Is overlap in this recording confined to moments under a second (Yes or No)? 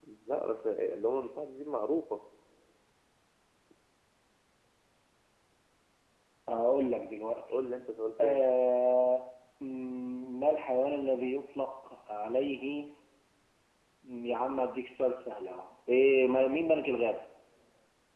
Yes